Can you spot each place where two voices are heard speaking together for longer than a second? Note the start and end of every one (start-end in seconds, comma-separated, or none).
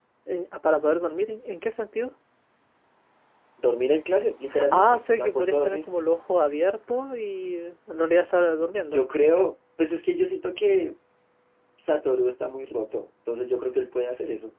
4.5-5.8